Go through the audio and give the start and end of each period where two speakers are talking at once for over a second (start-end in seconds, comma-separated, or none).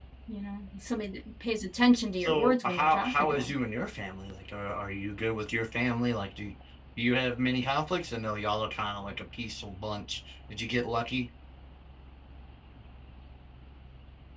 2.2-3.5